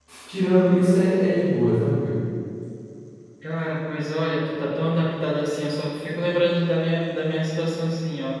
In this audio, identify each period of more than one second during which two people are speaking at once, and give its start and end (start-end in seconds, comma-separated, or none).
none